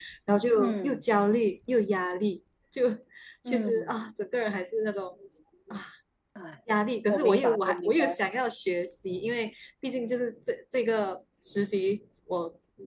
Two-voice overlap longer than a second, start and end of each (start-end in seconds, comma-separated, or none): 7.1-8.5